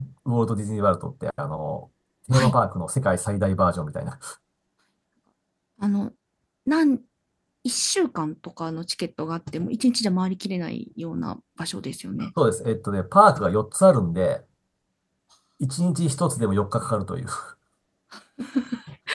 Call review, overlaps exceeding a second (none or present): none